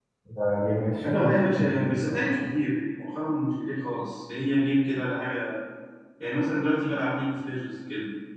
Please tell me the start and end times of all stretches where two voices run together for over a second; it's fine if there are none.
1.1-2.5

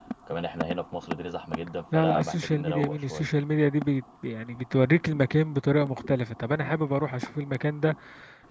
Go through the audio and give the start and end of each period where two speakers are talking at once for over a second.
1.9-3.3

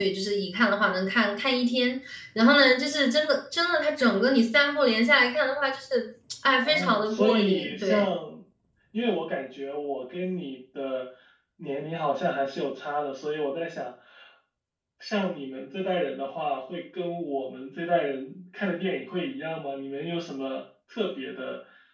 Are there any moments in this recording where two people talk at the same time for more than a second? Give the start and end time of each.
6.6-8.1

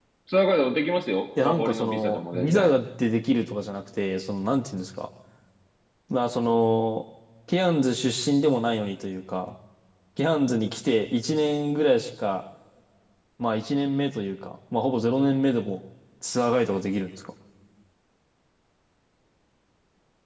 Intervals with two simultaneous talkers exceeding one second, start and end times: 1.4-2.7

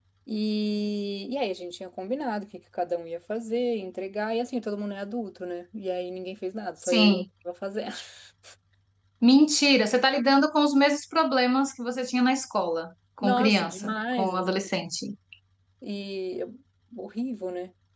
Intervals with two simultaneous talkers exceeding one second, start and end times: 13.2-14.4

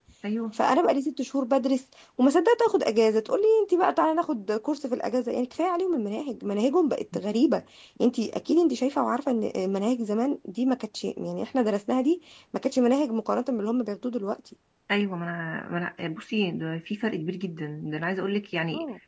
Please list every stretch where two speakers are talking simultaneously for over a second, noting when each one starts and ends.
none

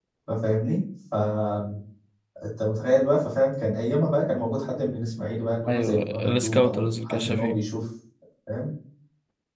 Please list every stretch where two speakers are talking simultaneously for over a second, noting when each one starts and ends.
5.7-7.6

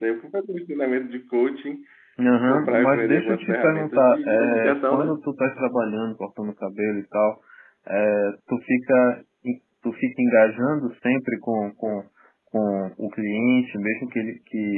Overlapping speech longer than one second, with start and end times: 2.5-5.2

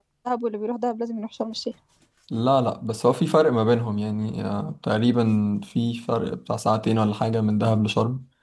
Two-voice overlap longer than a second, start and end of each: none

